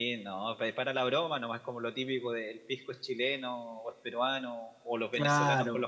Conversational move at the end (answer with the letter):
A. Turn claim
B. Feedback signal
B